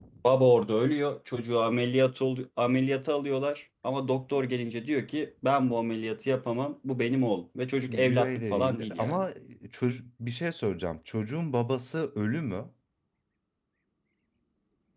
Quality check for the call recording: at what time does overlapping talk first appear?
8 s

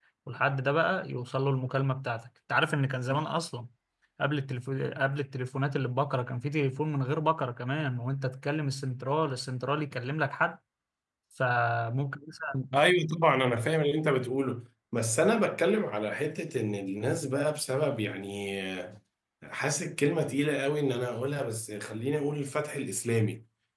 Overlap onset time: none

